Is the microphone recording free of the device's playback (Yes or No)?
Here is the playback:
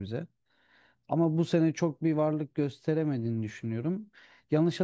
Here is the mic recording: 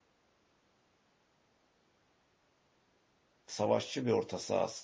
Yes